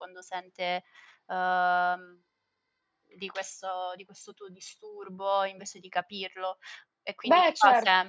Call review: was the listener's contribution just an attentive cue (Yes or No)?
Yes